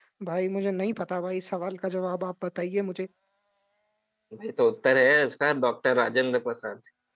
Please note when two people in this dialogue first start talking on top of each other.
none

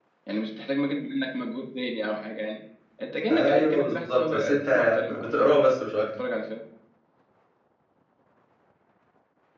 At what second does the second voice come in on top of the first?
3.3 s

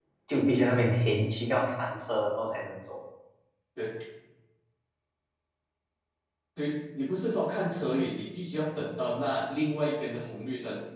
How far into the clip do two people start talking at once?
none

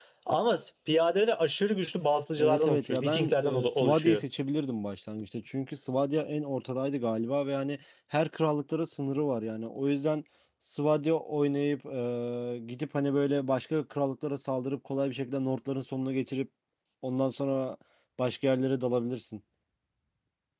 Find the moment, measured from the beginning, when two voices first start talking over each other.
2.4 s

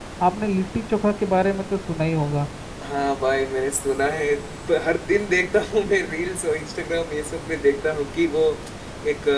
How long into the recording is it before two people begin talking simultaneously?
none

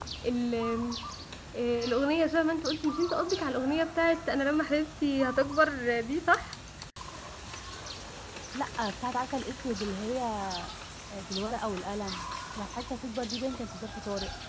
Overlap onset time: none

